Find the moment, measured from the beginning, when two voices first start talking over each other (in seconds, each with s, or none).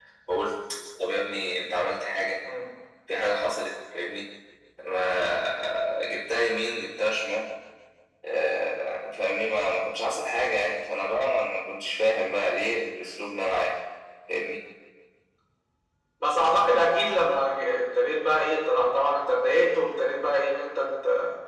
none